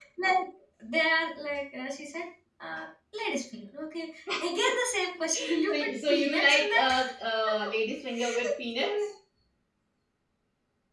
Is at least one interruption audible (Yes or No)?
Yes